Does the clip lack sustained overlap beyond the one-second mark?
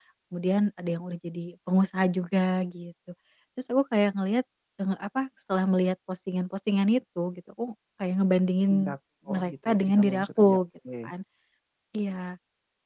No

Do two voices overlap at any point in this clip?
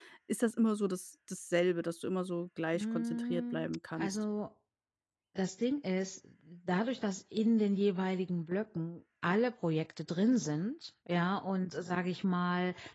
Yes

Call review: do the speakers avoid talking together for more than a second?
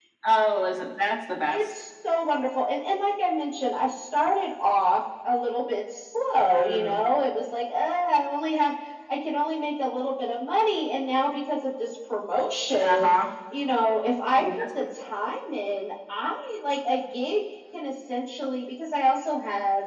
Yes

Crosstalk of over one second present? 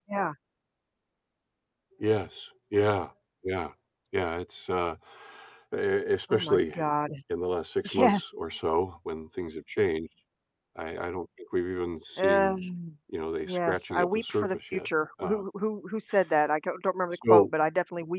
Yes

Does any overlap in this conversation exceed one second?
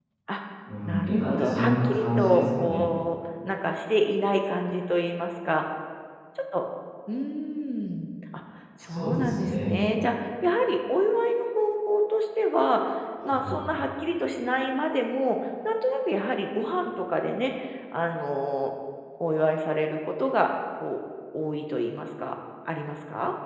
Yes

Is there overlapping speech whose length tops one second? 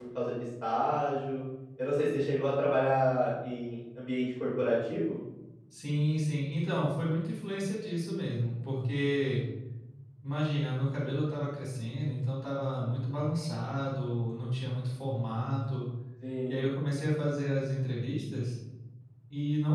No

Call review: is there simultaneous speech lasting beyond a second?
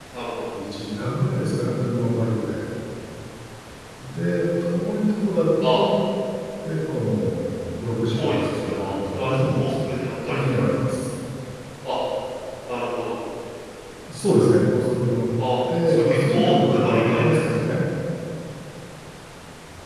Yes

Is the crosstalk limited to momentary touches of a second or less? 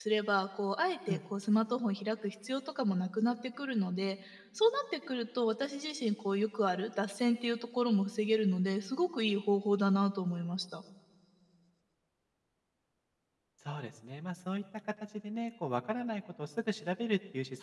Yes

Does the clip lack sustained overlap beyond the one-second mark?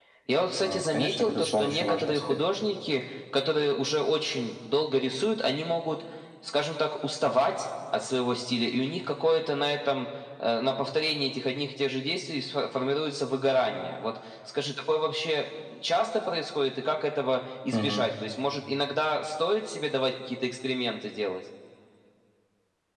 No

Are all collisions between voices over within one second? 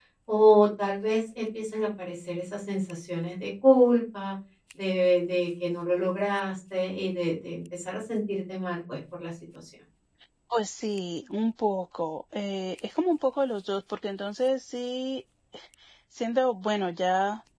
Yes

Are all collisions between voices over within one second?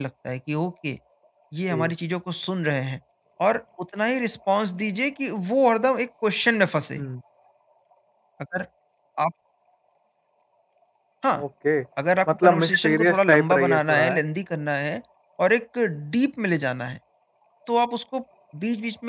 No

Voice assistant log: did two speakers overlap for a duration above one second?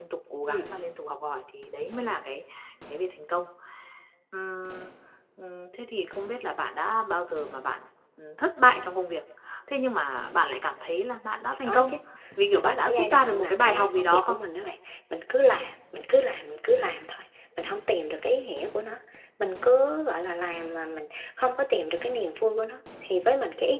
Yes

